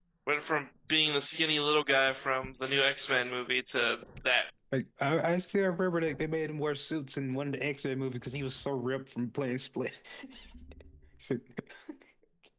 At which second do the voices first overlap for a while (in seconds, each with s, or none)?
none